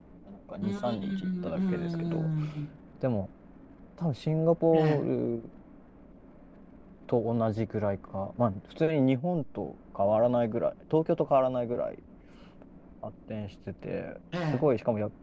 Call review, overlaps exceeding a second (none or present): present